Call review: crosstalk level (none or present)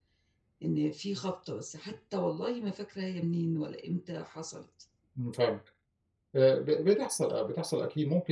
none